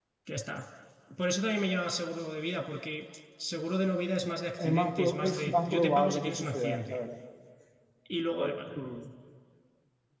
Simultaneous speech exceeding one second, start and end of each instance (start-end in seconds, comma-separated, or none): 4.6-7.0